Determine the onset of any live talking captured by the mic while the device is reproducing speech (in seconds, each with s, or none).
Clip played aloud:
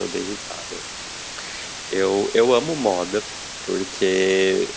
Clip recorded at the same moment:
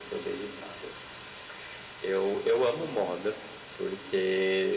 none